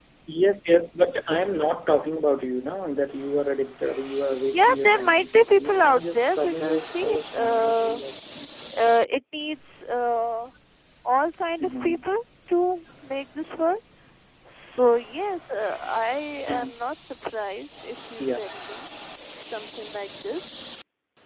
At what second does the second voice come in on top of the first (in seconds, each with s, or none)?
4.5 s